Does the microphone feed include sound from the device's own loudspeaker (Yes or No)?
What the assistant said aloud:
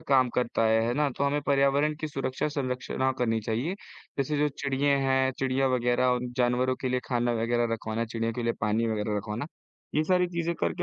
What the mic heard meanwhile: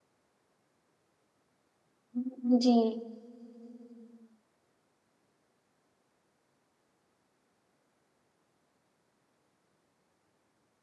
No